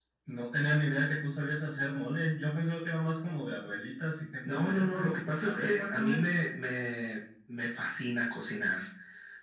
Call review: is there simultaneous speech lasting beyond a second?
Yes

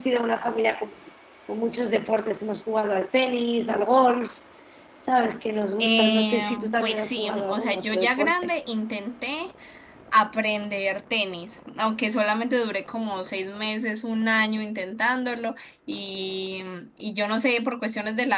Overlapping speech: Yes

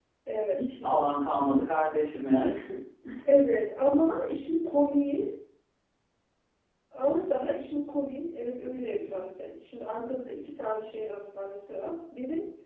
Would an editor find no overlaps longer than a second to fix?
Yes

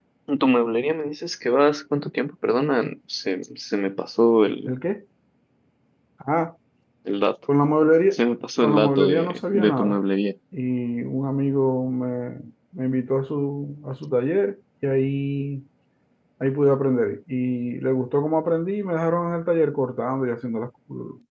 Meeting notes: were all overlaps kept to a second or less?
No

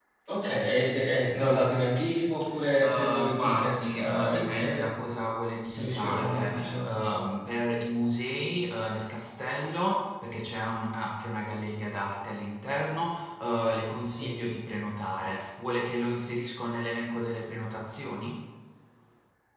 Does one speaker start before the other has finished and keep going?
Yes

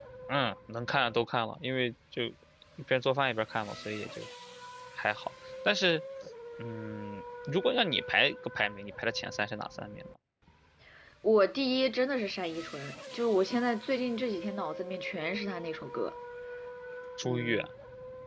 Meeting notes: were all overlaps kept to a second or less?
Yes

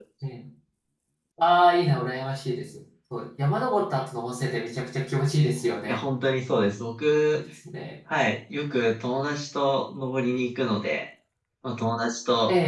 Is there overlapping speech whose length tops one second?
No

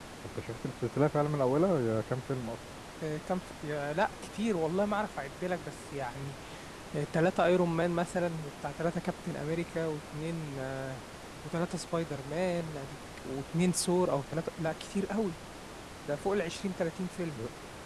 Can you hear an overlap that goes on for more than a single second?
No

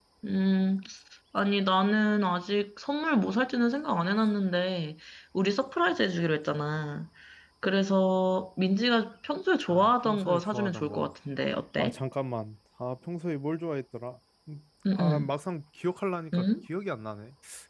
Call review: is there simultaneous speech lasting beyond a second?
Yes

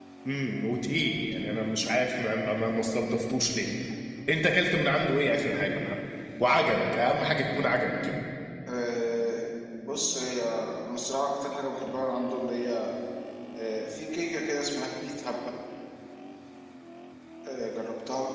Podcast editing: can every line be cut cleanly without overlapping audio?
Yes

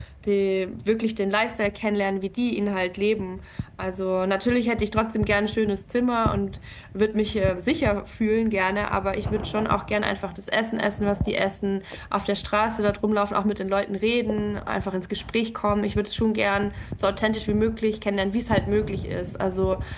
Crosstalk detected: No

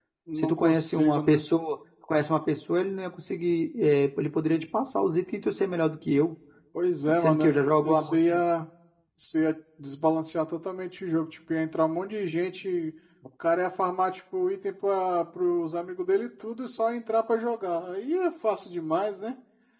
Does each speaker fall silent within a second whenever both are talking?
No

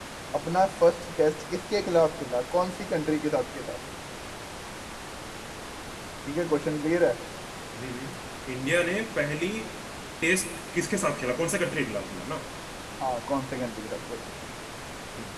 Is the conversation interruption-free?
Yes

